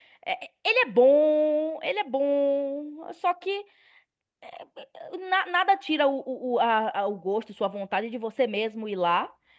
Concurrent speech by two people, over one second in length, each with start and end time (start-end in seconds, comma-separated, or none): none